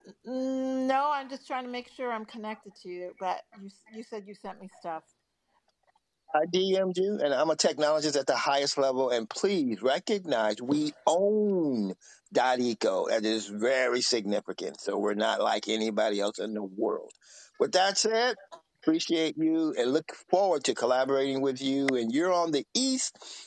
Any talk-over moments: No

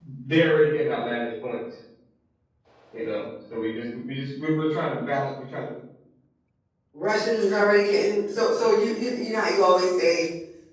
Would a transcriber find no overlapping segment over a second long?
Yes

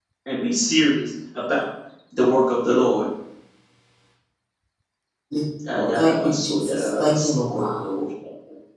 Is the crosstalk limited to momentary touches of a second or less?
No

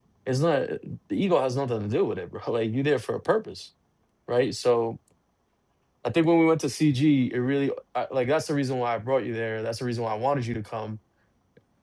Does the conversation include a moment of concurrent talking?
No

